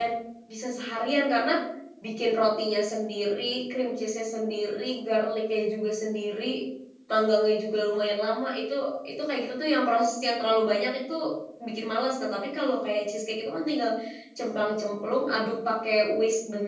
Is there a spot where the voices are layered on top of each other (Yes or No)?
No